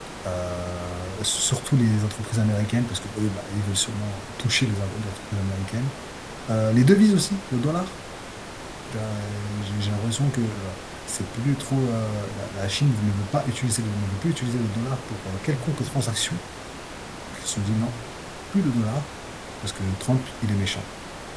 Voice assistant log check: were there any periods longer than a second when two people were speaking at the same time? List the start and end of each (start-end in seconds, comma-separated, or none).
none